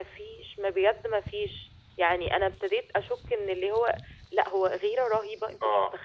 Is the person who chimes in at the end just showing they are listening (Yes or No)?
No